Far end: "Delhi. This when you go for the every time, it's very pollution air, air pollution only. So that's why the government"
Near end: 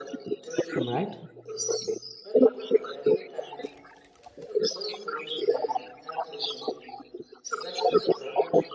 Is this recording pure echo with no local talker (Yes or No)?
No